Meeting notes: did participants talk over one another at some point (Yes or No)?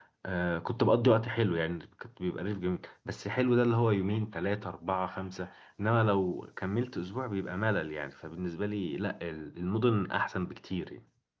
No